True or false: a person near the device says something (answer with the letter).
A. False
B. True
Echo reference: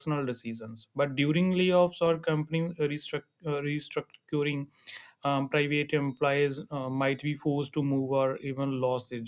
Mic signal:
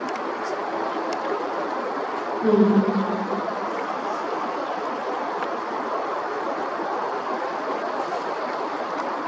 B